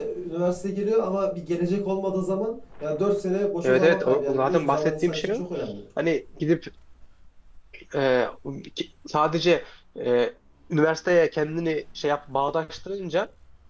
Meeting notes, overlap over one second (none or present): present